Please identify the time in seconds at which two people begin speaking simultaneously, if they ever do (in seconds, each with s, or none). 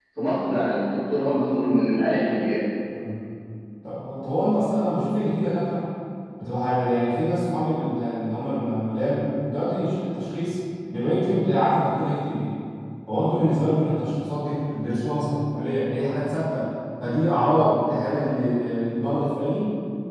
none